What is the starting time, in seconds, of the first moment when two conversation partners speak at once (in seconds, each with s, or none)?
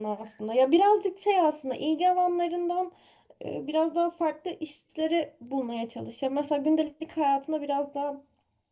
none